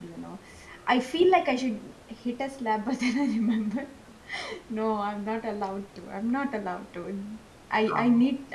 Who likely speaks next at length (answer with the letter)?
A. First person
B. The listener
A